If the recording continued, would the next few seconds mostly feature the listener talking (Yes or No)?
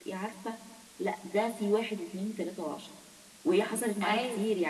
No